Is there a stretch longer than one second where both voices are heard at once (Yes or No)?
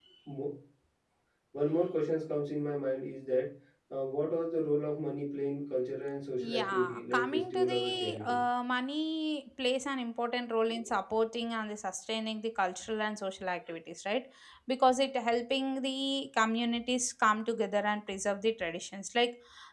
Yes